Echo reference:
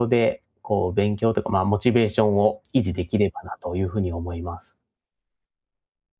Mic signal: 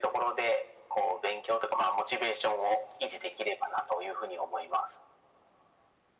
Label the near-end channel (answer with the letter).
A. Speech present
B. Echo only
B